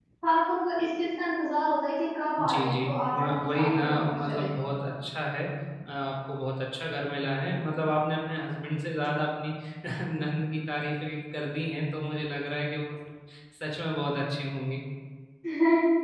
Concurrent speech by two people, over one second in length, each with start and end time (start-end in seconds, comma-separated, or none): 2.5-4.5